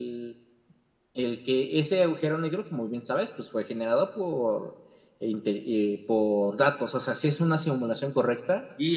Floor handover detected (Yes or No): Yes